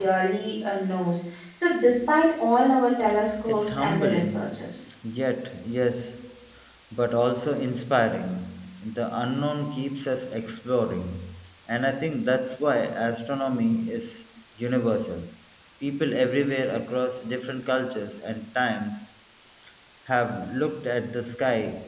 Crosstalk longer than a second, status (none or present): present